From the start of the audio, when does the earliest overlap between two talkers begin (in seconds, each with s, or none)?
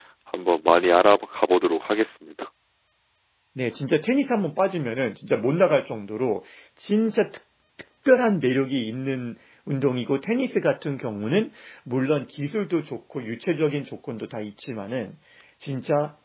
none